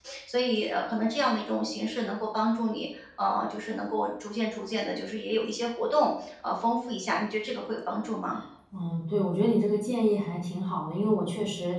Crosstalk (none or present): none